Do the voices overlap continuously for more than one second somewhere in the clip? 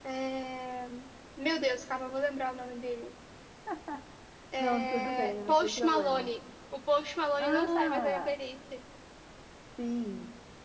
Yes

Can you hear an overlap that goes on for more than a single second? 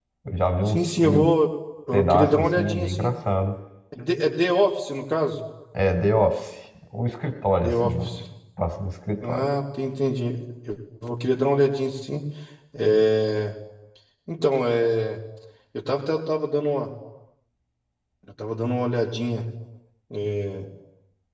Yes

